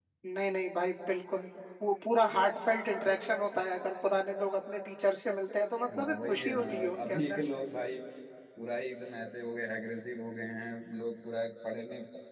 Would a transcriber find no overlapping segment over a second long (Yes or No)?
No